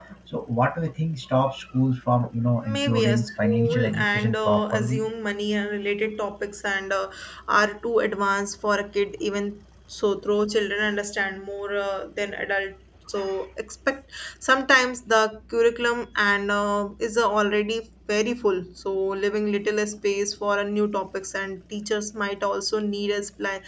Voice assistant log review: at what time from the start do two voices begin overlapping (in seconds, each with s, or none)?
2.6 s